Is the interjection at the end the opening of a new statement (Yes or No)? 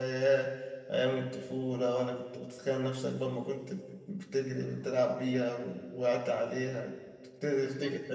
Yes